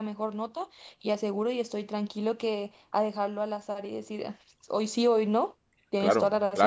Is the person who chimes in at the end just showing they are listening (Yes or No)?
No